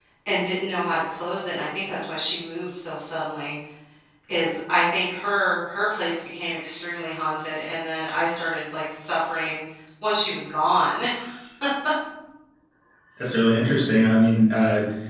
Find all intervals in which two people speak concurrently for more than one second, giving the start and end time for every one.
none

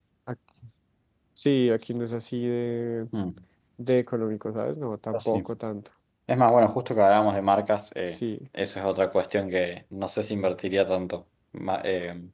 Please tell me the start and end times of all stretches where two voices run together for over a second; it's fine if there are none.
none

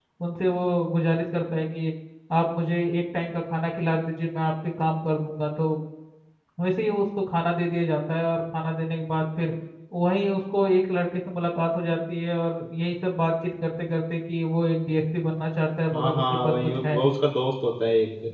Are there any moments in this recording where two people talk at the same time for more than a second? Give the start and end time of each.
15.9-17.1

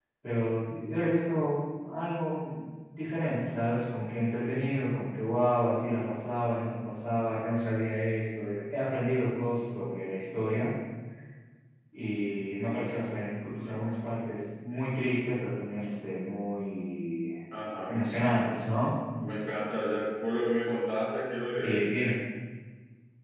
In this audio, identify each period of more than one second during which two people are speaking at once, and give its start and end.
none

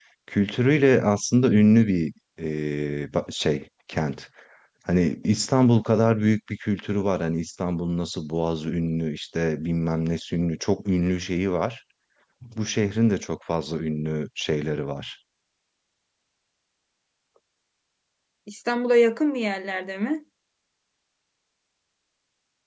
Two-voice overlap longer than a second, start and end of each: none

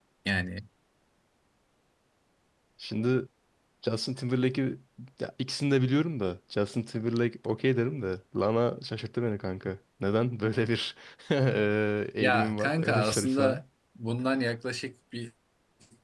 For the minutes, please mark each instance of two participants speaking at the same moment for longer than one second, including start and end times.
12.2-13.6

